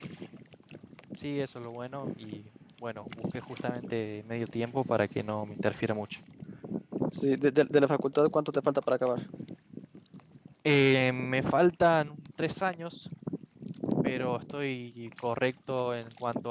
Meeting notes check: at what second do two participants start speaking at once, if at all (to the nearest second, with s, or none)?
none